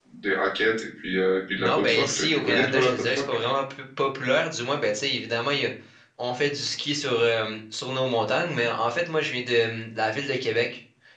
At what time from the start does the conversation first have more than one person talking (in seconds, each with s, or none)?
1.6 s